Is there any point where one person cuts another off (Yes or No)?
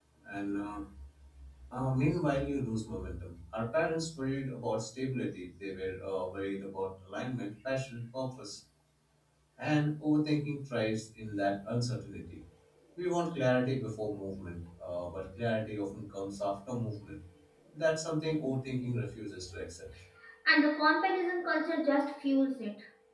No